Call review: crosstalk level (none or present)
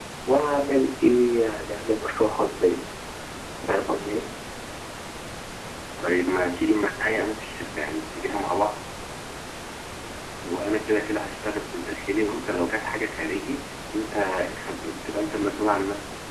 none